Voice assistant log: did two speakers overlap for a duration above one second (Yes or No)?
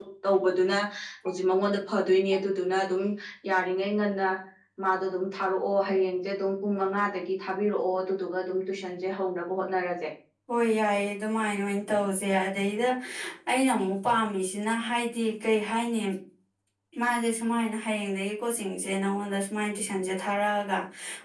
No